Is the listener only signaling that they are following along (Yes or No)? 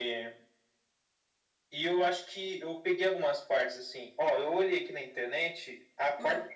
Yes